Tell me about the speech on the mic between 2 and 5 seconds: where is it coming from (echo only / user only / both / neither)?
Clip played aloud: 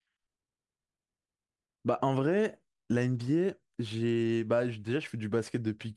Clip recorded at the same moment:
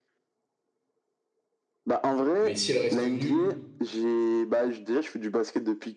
both